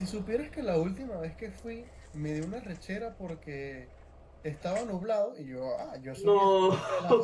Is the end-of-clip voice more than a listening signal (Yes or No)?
No